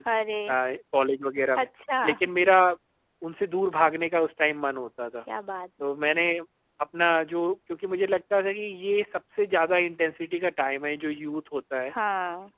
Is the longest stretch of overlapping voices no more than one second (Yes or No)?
Yes